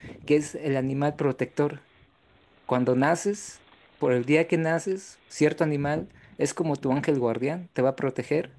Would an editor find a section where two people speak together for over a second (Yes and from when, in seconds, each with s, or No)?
No